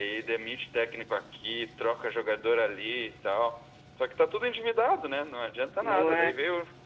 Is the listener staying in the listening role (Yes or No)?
Yes